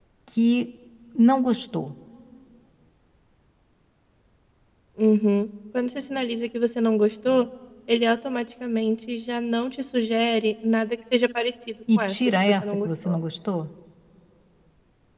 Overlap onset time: 11.9 s

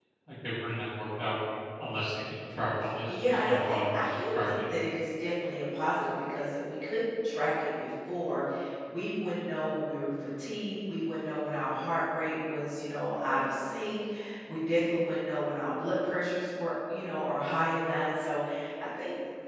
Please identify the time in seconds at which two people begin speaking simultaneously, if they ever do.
3.1 s

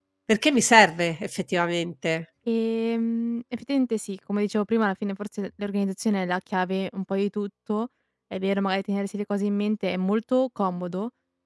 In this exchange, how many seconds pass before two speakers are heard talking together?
none

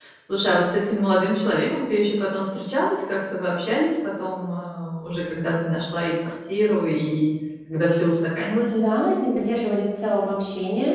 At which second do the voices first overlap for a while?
none

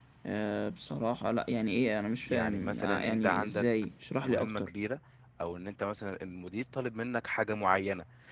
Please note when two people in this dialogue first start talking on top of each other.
2.3 s

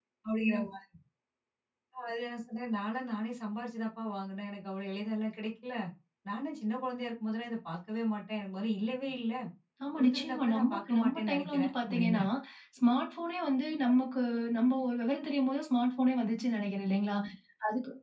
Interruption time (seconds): 10.0 s

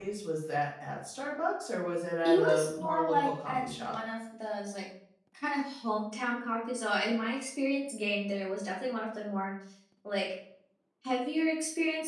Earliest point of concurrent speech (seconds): 2.2 s

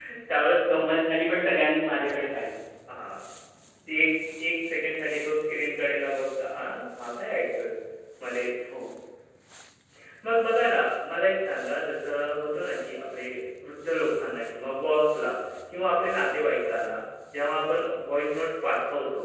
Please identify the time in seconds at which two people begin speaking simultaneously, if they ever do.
none

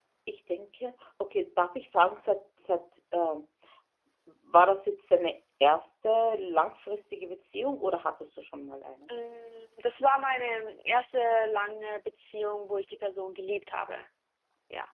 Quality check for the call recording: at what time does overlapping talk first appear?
none

